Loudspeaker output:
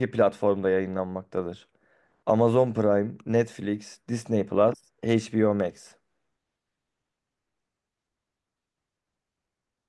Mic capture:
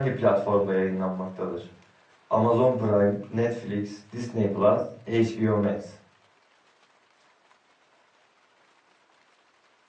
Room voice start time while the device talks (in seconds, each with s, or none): none